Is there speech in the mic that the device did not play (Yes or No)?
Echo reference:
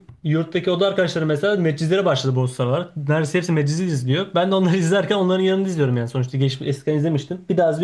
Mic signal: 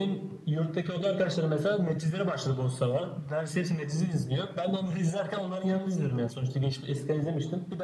No